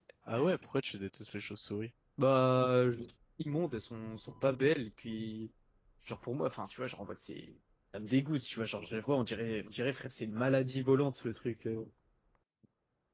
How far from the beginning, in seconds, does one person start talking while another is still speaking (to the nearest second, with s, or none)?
none